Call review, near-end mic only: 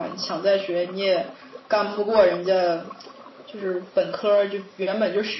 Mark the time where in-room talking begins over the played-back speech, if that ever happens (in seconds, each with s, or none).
none